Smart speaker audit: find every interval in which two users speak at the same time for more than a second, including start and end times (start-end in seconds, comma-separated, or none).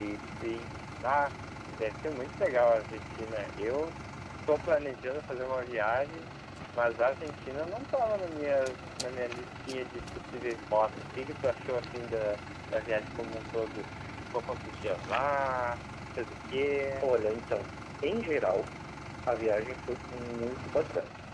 none